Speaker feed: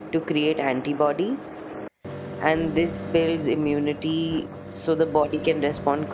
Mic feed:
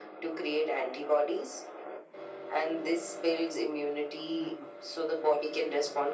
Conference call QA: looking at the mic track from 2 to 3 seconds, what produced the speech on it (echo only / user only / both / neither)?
echo only